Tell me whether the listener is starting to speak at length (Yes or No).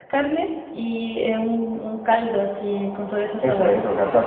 Yes